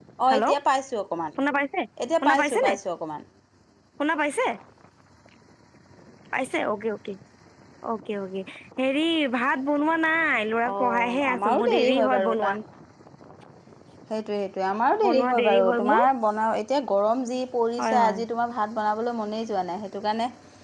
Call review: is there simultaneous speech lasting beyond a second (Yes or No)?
Yes